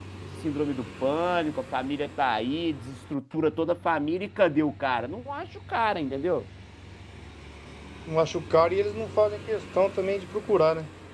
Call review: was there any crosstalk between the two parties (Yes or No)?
No